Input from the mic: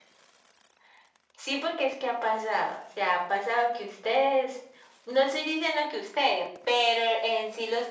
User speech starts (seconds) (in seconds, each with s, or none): none